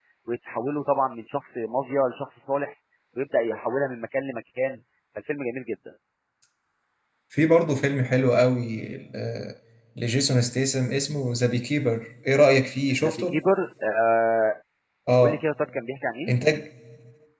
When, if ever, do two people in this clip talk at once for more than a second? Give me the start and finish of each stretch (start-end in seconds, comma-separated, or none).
none